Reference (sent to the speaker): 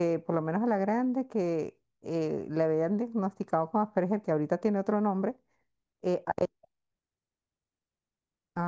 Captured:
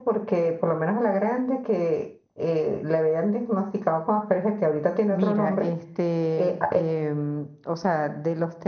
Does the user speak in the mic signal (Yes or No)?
Yes